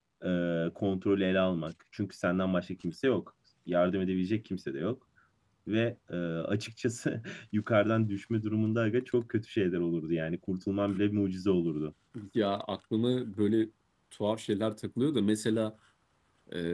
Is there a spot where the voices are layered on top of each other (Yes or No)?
No